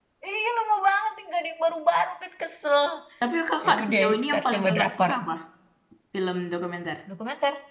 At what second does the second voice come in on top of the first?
3.7 s

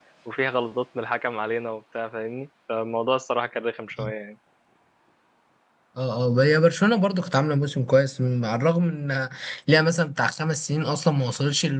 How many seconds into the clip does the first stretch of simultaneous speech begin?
none

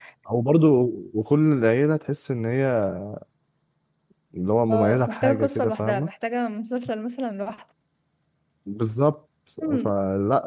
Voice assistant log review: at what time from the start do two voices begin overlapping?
4.7 s

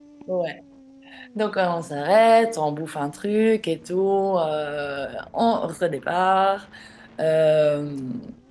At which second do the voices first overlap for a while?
none

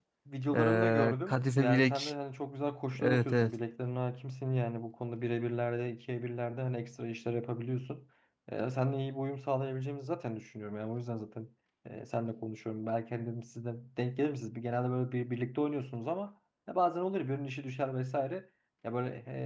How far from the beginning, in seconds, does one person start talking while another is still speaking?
0.5 s

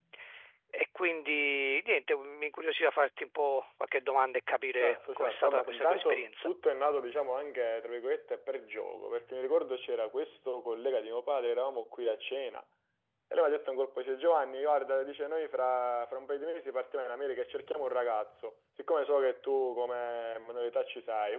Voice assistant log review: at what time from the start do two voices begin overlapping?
4.8 s

